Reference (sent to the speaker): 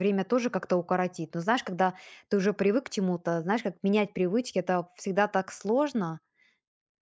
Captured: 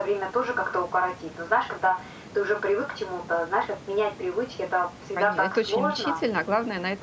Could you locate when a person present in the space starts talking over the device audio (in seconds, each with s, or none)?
5.1 s